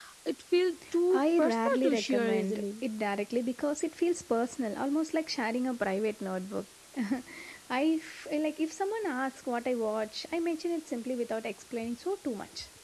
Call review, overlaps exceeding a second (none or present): present